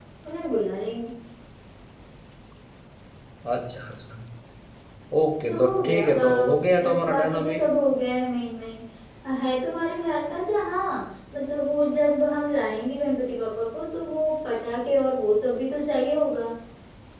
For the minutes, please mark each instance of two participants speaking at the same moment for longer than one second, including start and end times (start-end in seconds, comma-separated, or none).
5.5-7.6